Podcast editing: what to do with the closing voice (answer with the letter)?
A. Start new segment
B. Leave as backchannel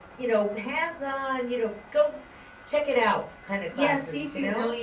A